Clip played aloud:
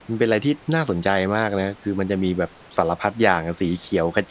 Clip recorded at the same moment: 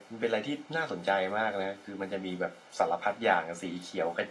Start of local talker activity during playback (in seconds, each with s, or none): none